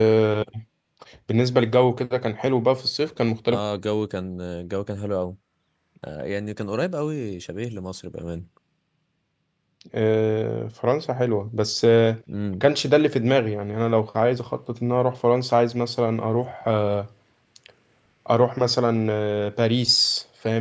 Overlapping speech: No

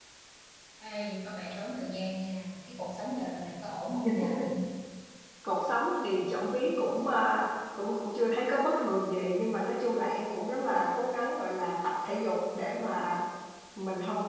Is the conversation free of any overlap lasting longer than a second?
Yes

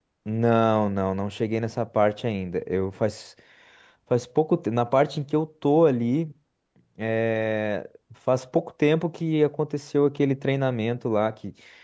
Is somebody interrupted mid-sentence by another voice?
No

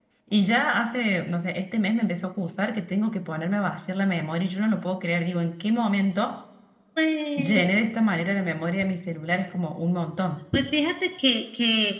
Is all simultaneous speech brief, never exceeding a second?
Yes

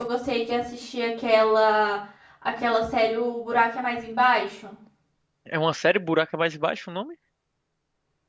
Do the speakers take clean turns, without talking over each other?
Yes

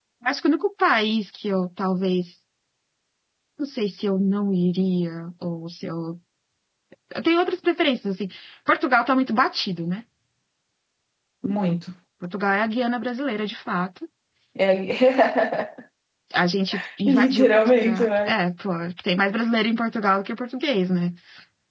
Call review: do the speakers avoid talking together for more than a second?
No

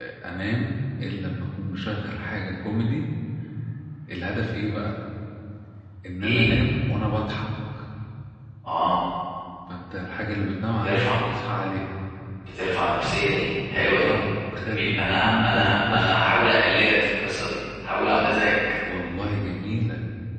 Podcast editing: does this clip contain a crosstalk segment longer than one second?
Yes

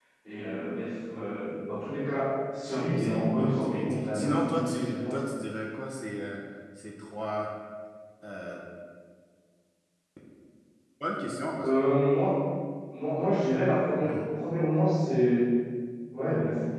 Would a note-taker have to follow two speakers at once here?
Yes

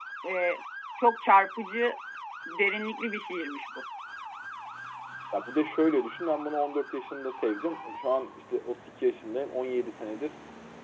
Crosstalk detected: No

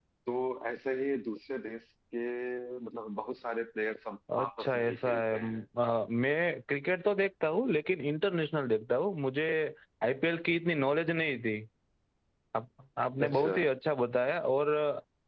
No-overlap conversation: No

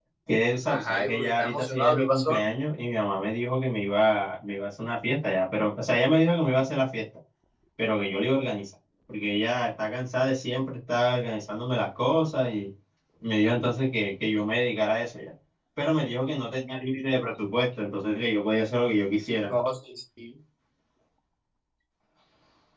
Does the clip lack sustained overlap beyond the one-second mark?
No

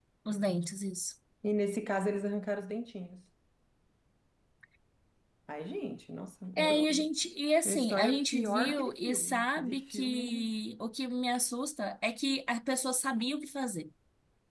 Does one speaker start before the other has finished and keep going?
Yes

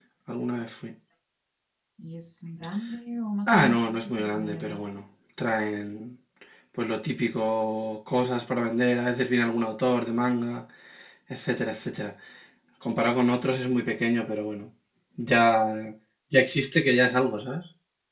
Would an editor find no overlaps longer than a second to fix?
No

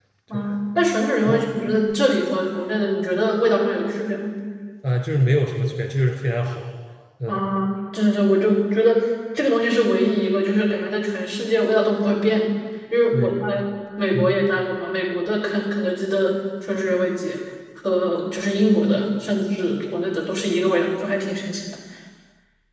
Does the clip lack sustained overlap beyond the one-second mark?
Yes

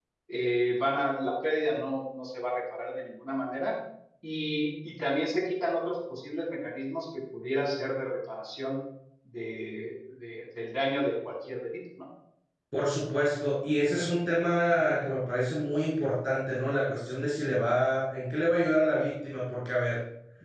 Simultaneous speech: No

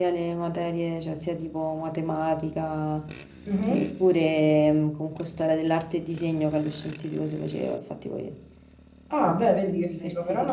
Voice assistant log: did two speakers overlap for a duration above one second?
Yes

